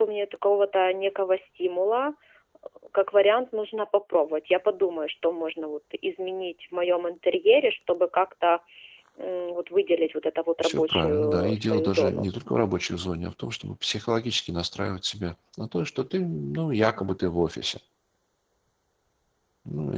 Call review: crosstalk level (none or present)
present